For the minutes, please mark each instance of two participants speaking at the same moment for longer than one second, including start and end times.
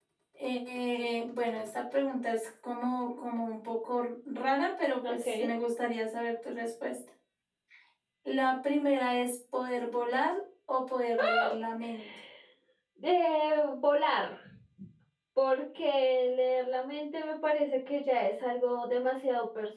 none

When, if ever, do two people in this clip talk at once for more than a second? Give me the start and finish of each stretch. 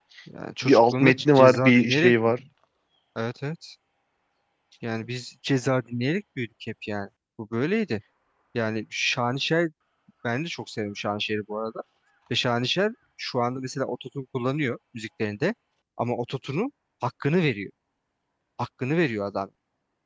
0.6-2.1

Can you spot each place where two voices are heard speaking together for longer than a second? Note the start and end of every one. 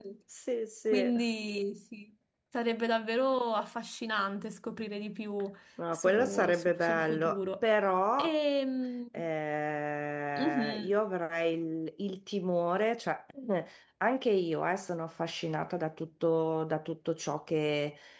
5.9-7.6

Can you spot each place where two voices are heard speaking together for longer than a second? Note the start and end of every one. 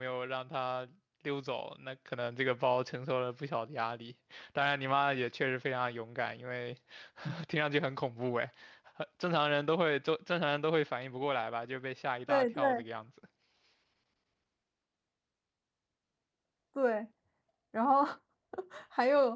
none

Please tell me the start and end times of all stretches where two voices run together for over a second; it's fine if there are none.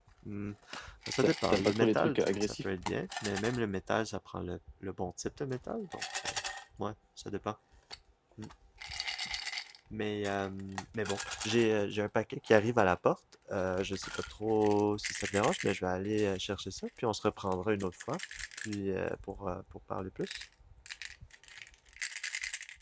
1.2-2.5

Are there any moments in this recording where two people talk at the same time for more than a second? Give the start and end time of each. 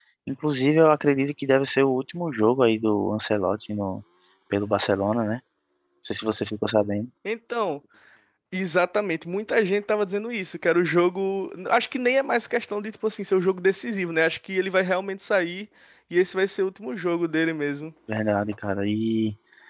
none

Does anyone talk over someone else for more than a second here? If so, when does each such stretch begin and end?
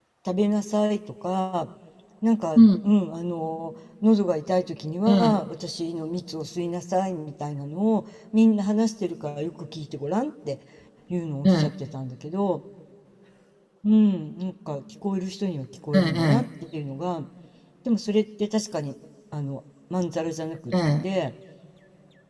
none

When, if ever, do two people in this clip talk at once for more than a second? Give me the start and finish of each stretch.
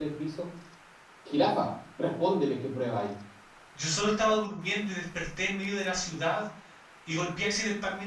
none

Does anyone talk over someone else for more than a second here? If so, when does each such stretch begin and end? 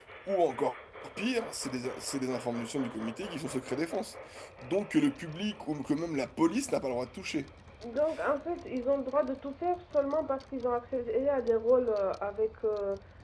none

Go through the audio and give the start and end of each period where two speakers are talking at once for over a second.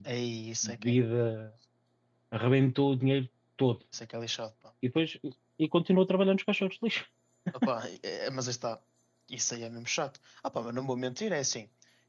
none

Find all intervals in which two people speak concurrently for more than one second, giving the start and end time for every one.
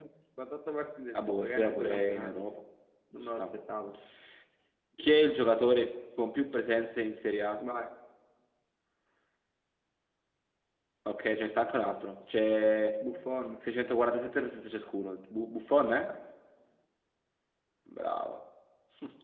1.1-2.4

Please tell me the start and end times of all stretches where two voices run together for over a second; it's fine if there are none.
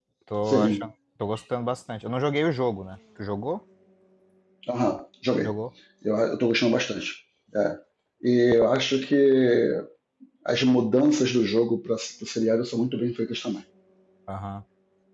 none

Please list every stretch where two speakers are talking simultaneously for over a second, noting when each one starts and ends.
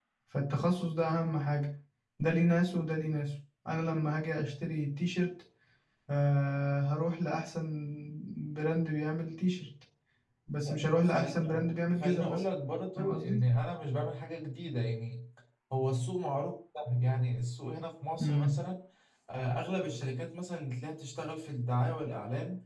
10.7-12.4

